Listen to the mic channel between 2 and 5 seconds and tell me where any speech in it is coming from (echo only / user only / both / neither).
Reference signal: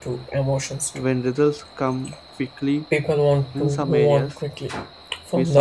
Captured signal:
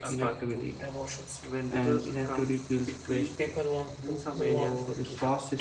both